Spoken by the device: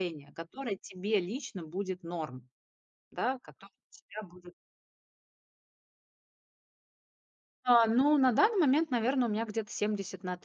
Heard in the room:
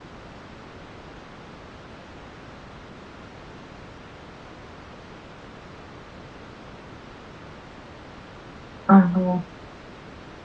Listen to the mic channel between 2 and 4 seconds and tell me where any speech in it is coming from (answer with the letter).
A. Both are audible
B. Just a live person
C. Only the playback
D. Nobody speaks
D